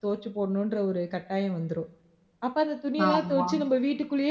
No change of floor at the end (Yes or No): Yes